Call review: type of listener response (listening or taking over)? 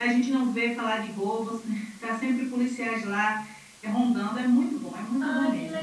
taking over